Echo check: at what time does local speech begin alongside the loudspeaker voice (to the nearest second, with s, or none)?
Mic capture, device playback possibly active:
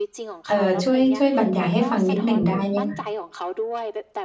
0 s